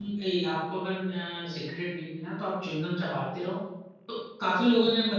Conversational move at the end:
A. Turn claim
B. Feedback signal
B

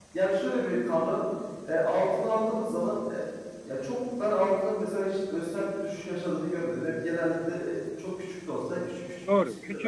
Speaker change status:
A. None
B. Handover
B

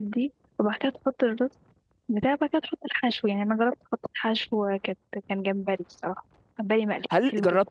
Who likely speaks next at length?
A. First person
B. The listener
B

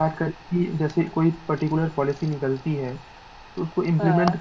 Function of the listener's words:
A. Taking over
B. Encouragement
B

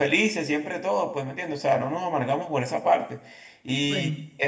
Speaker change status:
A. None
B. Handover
A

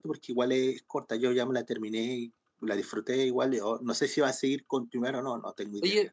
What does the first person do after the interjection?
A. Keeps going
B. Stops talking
B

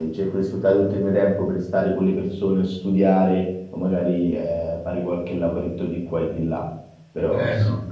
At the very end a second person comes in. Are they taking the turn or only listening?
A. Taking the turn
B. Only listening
A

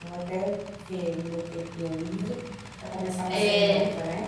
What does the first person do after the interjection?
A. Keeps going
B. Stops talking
B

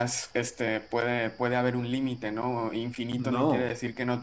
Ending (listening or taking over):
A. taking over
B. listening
B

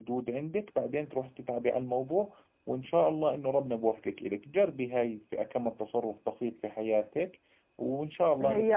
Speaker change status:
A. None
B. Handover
B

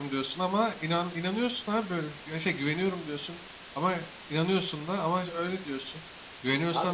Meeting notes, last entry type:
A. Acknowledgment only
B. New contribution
A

